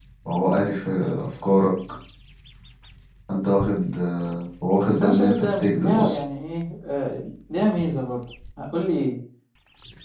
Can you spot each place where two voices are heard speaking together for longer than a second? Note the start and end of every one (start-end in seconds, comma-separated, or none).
4.9-6.2